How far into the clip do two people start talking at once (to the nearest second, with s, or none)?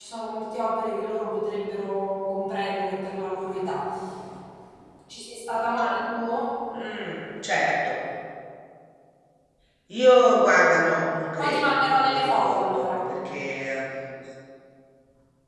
11 s